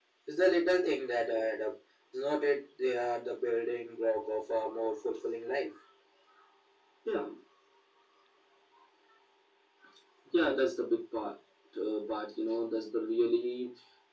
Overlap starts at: none

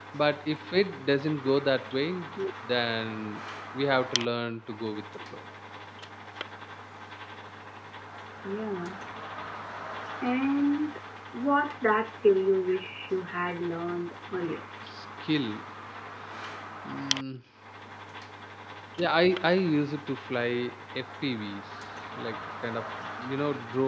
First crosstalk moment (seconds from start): none

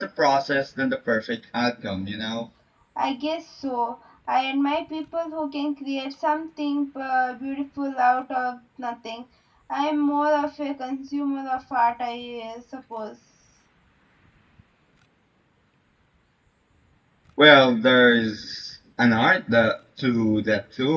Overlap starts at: none

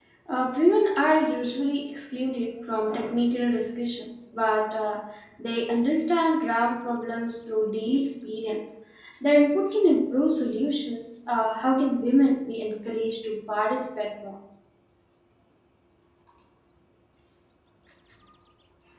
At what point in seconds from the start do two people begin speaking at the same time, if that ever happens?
none

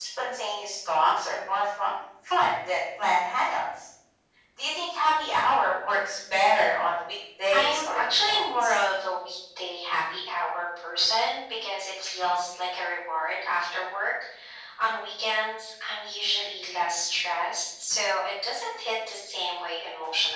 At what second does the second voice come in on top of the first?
8 s

